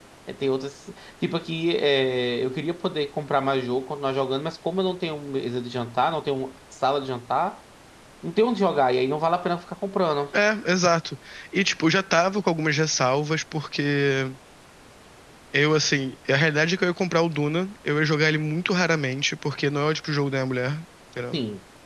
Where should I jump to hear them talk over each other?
none

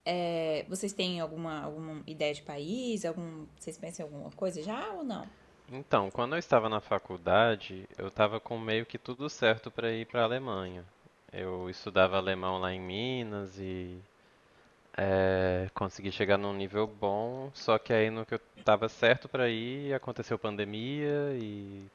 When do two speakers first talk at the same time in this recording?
none

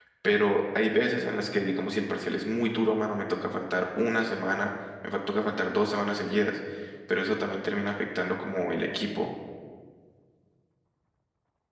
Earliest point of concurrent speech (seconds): none

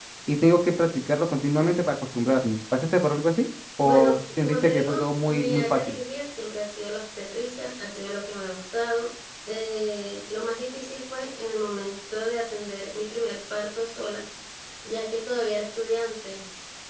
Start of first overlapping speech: 3.8 s

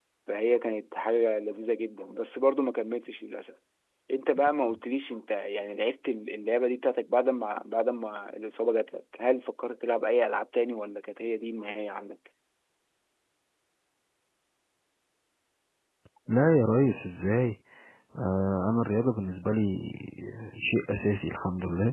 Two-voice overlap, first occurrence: none

